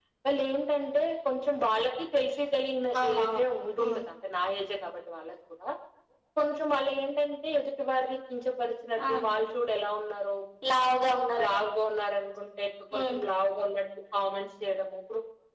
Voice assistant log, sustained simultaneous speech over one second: none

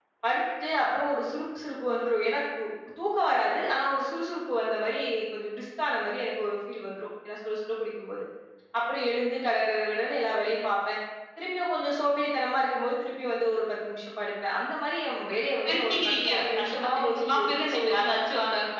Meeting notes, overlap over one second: present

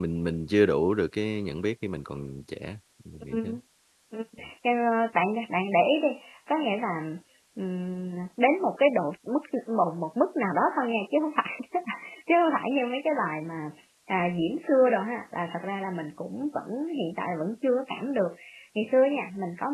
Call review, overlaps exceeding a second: none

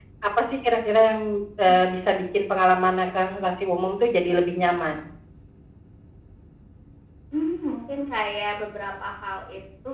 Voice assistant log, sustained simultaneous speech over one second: none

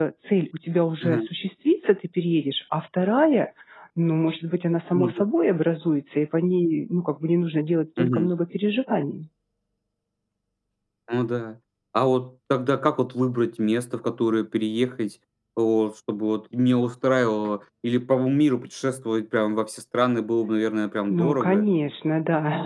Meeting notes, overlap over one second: none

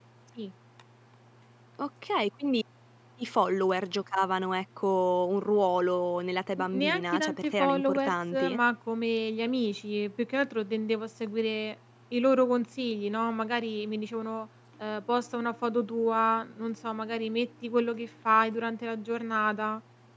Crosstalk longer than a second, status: present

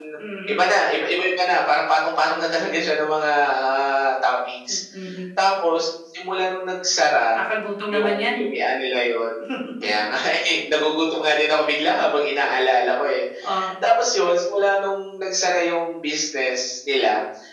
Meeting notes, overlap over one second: none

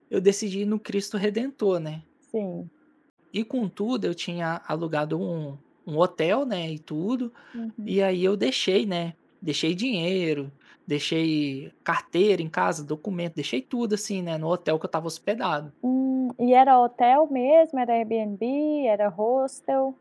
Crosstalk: none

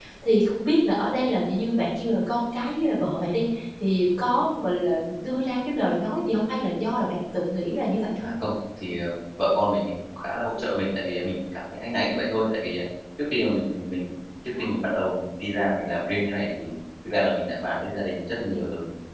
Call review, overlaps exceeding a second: none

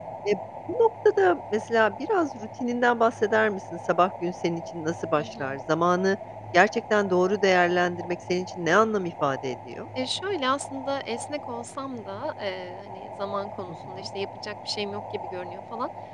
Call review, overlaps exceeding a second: none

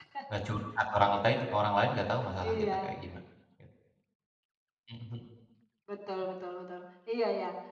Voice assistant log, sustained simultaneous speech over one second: none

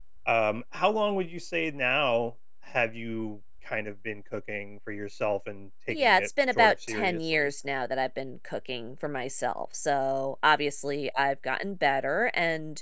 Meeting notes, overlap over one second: present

